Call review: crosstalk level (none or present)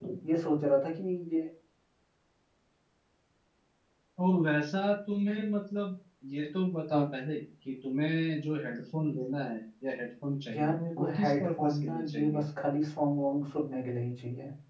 present